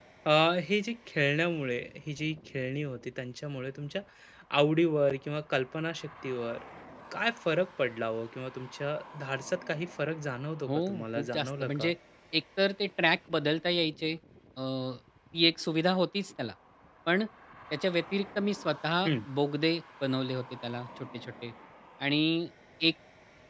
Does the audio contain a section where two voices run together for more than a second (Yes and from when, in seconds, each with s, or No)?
Yes, from 10.7 s